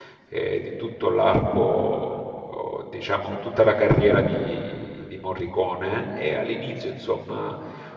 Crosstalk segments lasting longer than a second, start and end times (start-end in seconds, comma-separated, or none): none